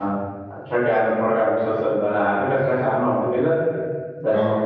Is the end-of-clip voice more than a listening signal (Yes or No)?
No